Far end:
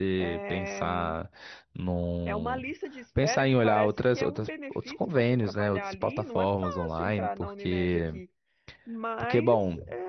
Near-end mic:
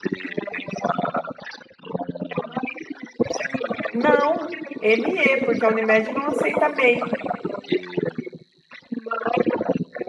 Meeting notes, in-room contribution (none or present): present